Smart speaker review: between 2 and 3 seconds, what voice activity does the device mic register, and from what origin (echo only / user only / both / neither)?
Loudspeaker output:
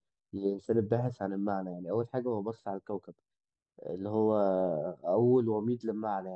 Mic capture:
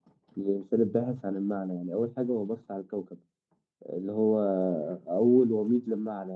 echo only